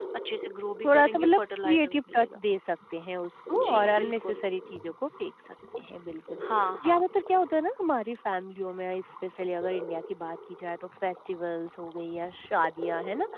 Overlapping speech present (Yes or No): Yes